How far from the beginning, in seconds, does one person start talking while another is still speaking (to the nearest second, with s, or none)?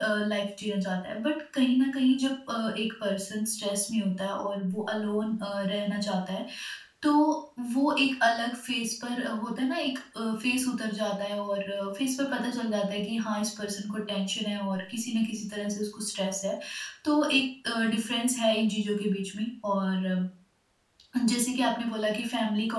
none